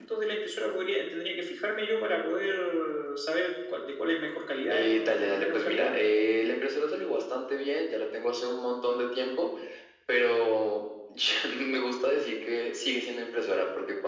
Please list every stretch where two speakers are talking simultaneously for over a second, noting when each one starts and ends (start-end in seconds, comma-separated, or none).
4.7-6.0